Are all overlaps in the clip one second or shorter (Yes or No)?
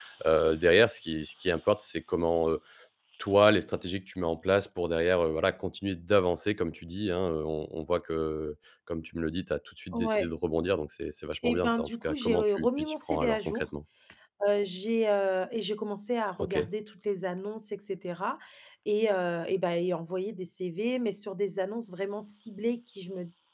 No